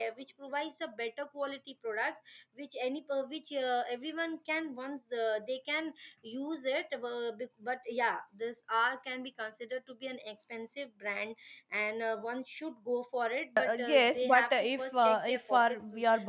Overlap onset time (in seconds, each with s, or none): 13.6 s